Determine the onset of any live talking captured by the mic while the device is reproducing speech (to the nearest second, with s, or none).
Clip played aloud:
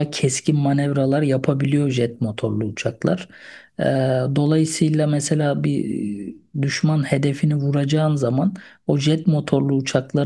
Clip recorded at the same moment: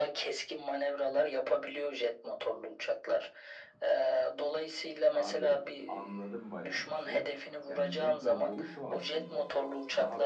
5 s